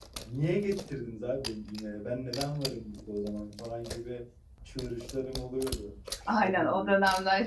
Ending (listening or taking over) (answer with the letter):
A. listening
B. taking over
B